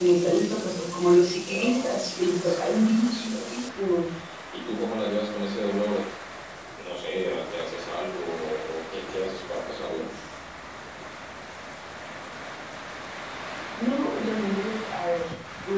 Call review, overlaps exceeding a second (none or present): present